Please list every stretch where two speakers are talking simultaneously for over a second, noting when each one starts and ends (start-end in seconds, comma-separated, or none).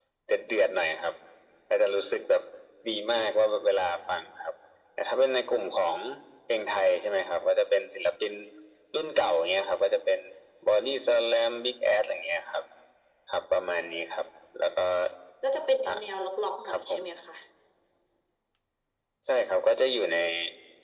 none